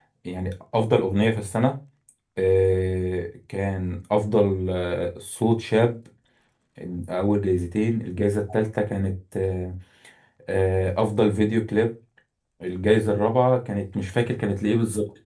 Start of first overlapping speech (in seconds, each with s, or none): none